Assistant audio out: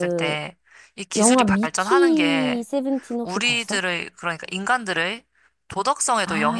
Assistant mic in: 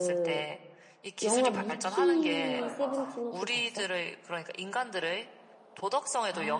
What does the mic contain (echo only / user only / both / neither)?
both